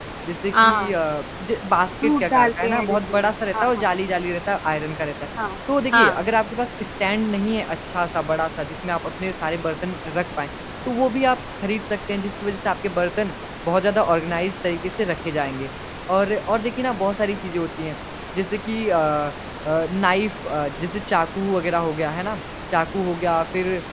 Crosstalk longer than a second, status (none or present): present